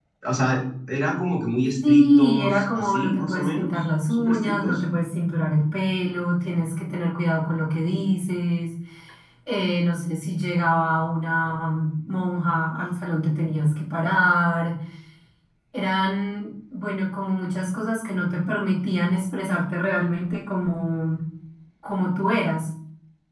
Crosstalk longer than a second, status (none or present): present